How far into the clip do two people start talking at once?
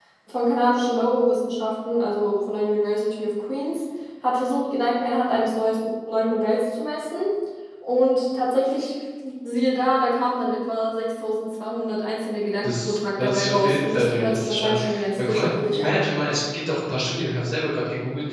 12.6 s

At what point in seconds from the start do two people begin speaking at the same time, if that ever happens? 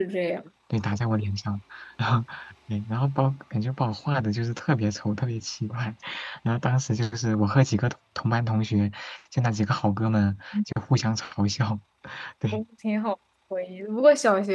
none

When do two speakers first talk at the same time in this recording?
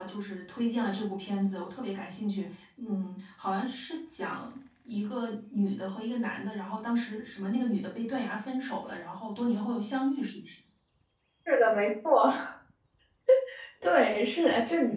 none

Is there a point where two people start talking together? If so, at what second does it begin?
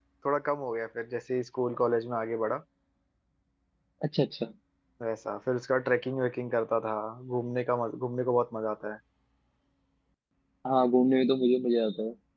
none

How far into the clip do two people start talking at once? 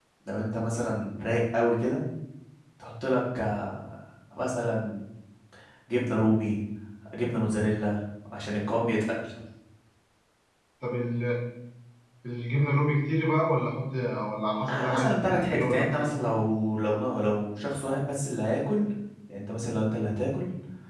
14.6 s

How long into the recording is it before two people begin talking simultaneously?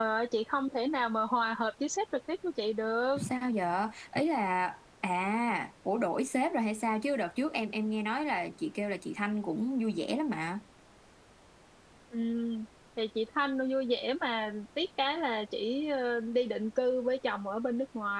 none

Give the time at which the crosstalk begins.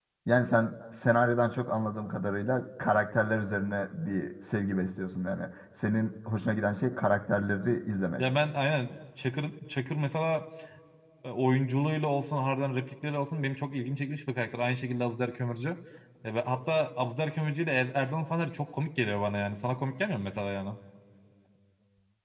none

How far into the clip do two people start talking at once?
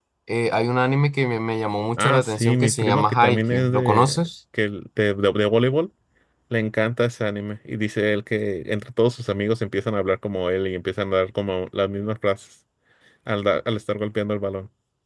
2.0 s

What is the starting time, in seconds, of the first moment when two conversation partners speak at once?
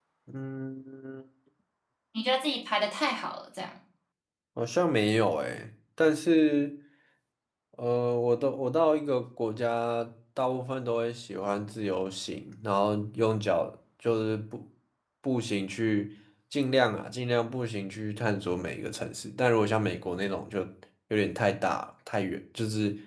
none

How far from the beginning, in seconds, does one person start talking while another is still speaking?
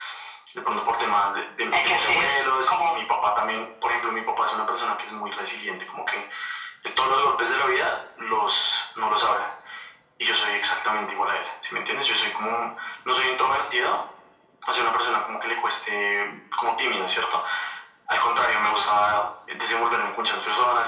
1.7 s

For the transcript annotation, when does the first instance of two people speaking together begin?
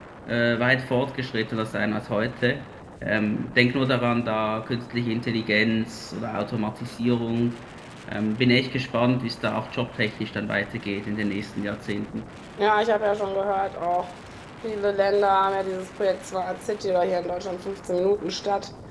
none

